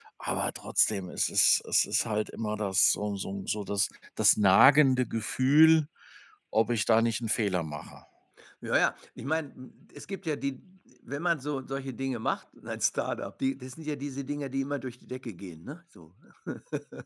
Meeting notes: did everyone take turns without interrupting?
Yes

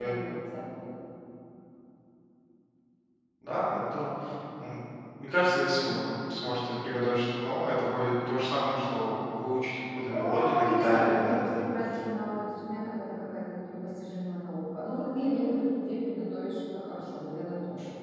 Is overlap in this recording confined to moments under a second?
No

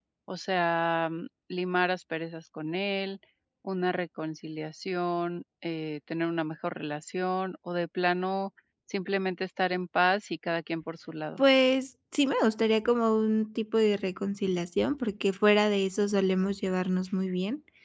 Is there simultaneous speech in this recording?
No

